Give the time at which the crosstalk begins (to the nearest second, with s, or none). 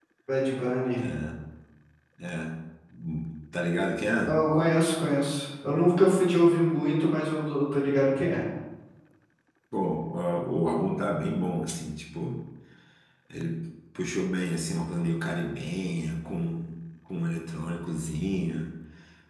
none